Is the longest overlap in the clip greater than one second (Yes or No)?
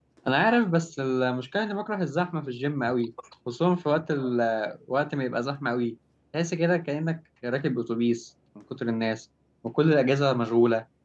No